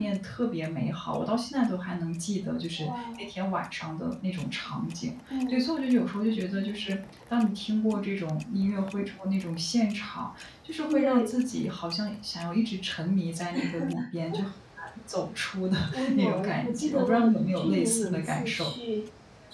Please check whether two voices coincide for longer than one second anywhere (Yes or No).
Yes